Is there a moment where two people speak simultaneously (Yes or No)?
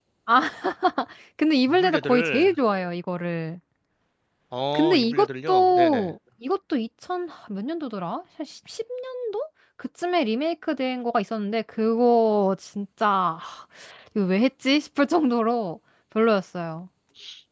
Yes